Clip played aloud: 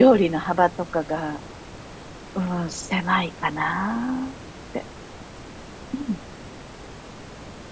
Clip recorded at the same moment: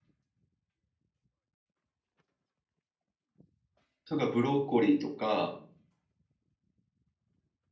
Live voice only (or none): とか、ブロッコリーとか、